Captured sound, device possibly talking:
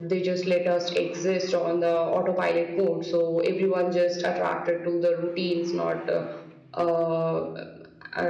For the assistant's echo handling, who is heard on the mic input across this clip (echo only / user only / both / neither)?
user only